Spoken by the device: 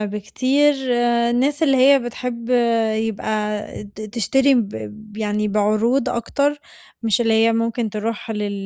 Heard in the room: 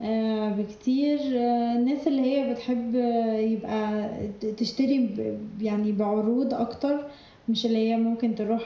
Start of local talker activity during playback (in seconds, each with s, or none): none